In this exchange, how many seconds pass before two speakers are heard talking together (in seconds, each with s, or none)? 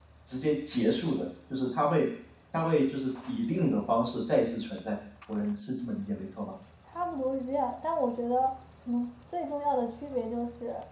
none